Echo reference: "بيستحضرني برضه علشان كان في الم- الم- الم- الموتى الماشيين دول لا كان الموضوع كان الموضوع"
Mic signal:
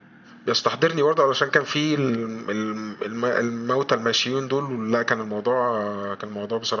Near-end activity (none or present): none